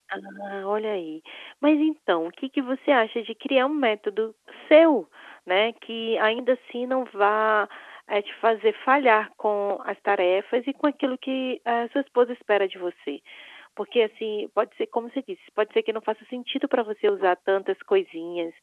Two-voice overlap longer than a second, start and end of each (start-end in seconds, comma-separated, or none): none